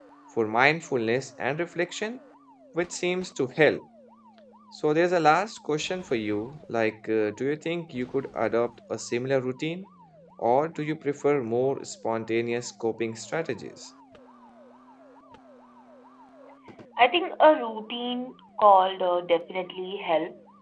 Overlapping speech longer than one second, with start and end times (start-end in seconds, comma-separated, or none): none